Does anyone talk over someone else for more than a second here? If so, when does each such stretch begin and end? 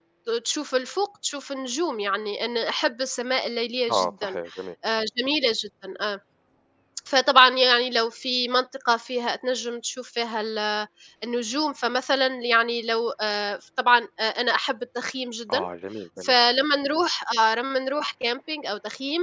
none

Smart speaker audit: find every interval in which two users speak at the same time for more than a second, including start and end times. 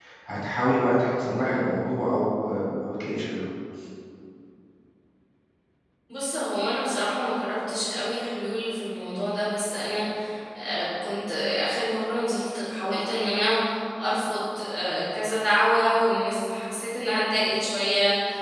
none

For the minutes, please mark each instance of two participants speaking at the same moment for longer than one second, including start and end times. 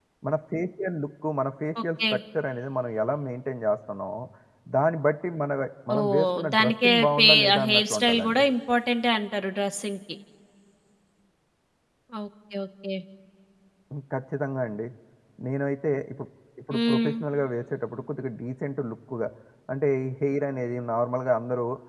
6.0-8.4

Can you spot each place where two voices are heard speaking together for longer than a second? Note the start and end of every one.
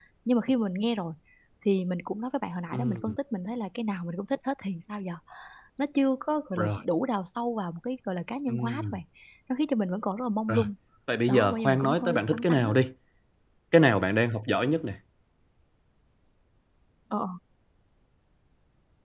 11.3-12.7

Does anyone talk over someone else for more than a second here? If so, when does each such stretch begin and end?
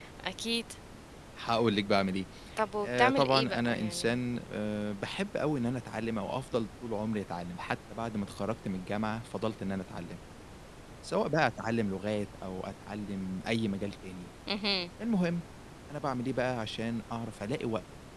2.8-4.2

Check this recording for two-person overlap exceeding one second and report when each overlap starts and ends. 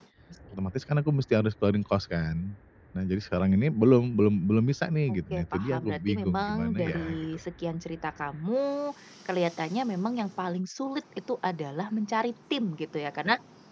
5.1-7.2

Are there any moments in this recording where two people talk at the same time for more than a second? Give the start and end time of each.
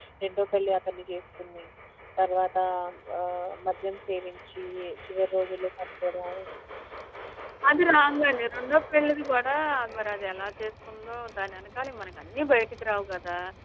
none

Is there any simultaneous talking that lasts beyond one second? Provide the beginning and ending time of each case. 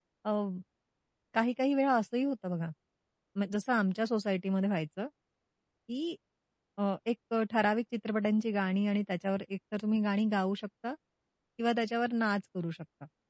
none

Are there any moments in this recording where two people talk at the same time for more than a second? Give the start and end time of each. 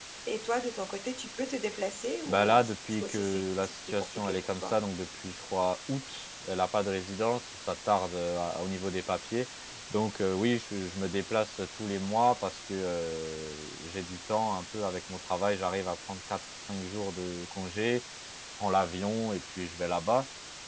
2.3-4.8

